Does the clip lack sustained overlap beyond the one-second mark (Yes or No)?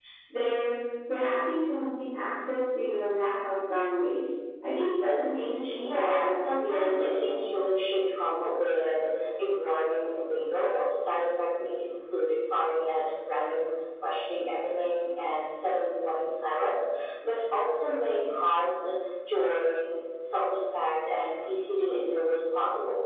No